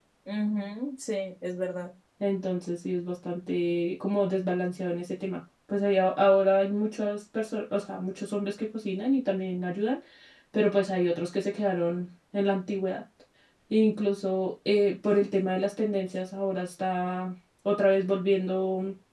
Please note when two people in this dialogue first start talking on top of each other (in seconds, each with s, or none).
none